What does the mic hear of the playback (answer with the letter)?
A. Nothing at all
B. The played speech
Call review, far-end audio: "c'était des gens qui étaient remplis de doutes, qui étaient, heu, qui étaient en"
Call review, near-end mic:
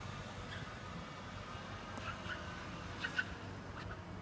A